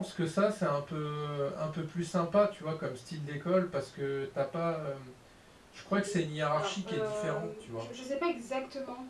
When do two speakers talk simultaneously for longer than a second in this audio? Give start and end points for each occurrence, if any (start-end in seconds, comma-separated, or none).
6.5-7.9